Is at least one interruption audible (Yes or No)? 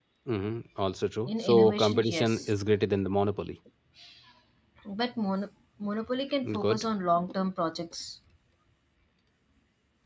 Yes